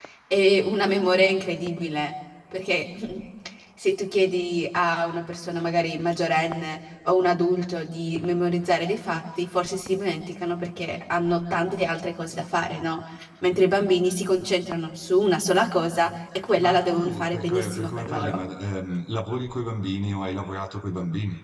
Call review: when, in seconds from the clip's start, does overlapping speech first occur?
16.6 s

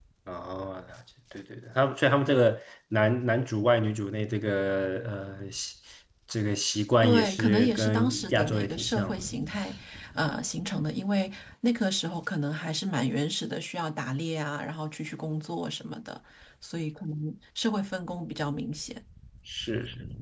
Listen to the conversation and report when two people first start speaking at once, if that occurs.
7.0 s

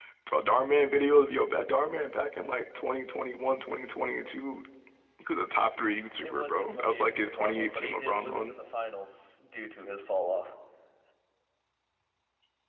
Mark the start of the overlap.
6.2 s

